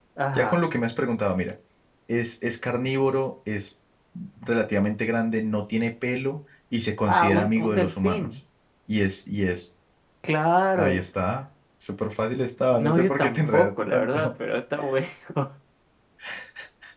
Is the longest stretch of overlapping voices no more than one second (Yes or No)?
No